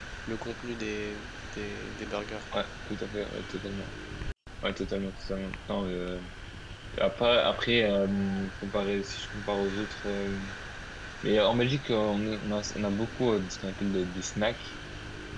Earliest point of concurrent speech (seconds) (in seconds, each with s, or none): none